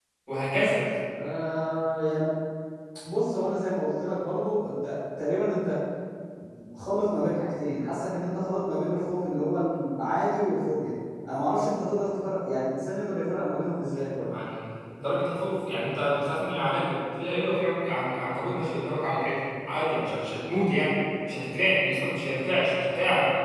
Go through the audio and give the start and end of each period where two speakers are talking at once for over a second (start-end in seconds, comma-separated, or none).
none